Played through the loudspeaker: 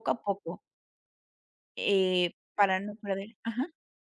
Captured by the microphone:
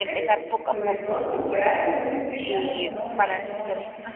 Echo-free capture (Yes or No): No